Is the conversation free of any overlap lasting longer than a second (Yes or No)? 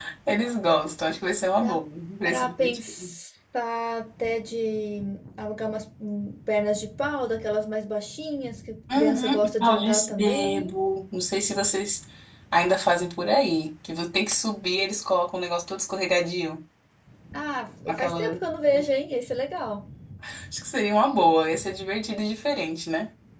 No